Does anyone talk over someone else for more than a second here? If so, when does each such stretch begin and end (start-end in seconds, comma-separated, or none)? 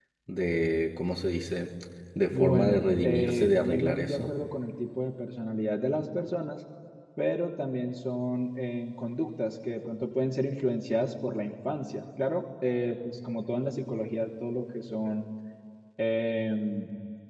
2.3-4.3